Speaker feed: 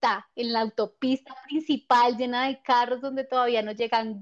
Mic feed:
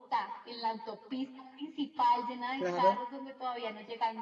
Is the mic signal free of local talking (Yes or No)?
No